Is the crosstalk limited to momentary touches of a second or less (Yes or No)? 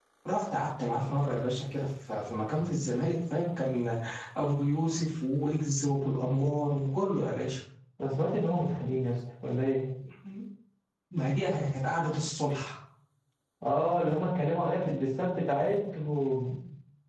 Yes